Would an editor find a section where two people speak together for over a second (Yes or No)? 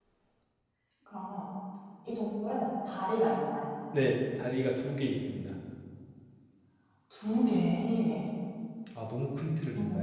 No